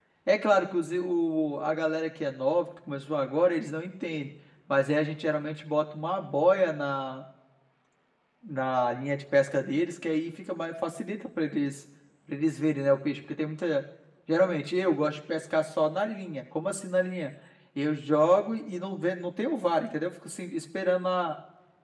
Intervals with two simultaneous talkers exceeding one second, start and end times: none

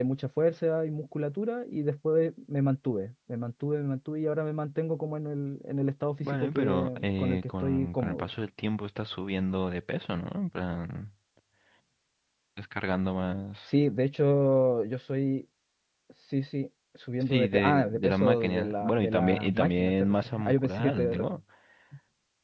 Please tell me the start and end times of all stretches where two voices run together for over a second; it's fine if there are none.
6.2-8.3, 17.3-21.2

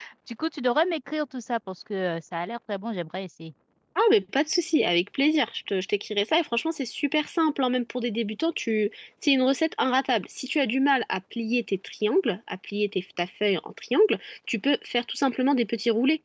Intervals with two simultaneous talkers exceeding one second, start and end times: none

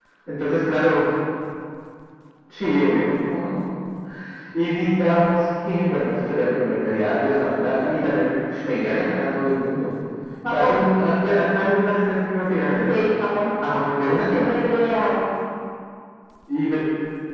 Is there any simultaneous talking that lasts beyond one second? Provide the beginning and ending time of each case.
none

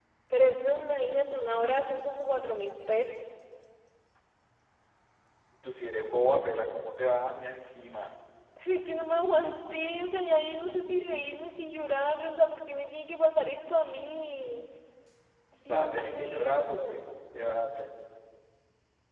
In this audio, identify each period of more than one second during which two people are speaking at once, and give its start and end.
15.7-17.0

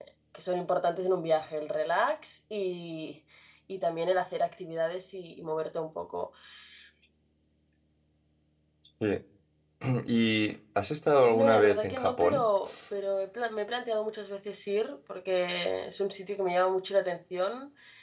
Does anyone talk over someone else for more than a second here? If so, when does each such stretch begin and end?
11.2-12.5

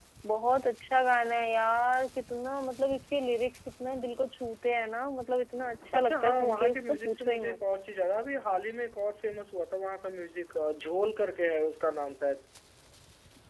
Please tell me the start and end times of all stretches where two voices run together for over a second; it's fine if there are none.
5.9-7.6

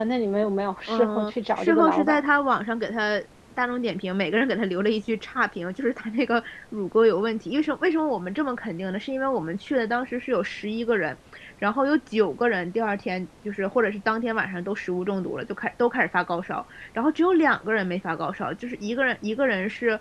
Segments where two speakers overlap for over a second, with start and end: 0.9-2.3

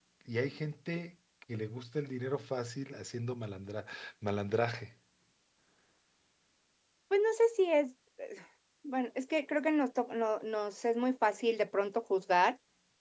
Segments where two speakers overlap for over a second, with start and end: none

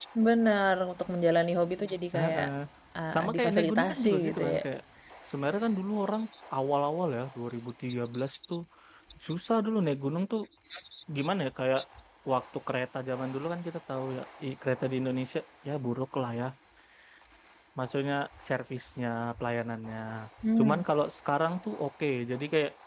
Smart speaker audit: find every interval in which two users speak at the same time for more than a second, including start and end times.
3.1-4.6

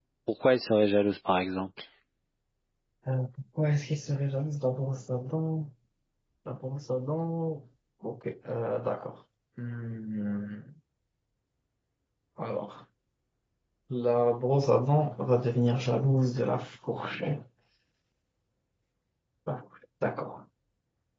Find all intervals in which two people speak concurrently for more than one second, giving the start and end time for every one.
none

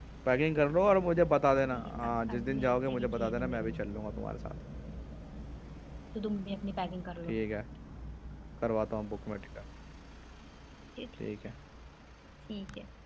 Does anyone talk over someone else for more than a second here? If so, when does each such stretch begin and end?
1.7-3.7

